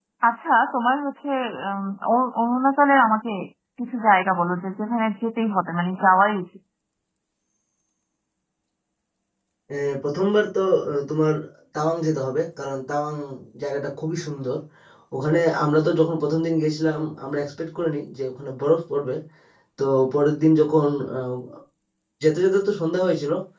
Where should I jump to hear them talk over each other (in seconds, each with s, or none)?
none